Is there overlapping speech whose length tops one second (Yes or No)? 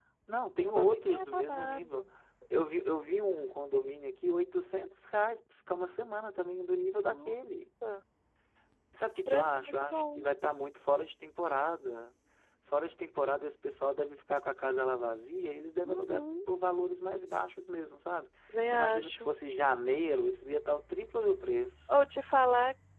Yes